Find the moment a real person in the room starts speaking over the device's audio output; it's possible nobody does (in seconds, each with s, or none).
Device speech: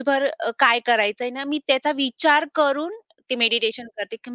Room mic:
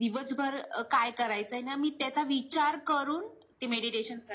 none